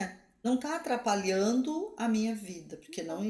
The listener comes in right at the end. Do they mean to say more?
No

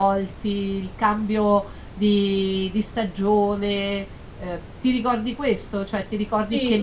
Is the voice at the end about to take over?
Yes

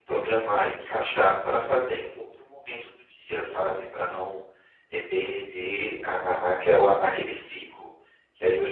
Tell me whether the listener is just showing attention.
No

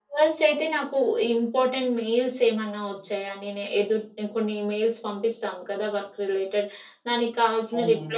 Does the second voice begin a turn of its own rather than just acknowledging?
No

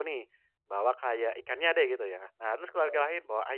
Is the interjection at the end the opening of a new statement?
No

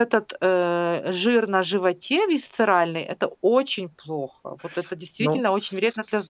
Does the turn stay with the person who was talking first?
No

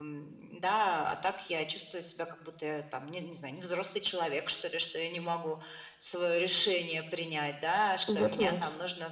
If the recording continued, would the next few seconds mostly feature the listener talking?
No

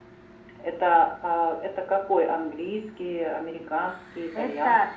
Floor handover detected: Yes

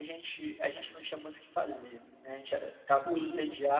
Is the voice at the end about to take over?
No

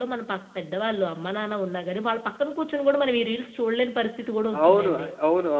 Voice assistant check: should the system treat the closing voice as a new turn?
Yes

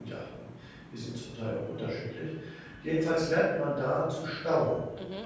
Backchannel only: No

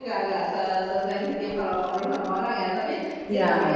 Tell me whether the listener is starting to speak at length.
No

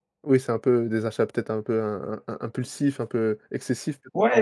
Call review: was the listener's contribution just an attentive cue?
No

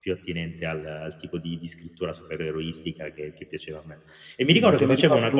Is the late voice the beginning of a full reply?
Yes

